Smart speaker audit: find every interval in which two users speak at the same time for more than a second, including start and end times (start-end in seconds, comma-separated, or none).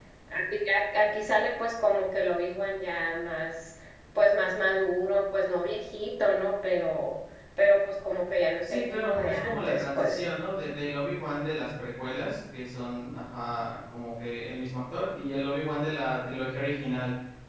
8.6-10.2